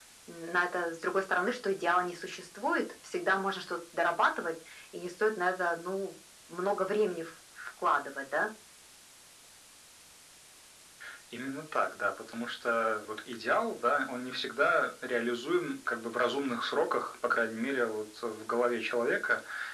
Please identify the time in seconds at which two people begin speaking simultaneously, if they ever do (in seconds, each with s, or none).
none